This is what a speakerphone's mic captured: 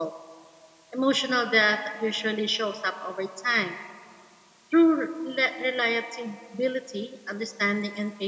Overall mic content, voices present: user only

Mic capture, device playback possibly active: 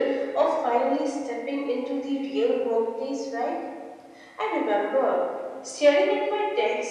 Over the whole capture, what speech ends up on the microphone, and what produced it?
echo only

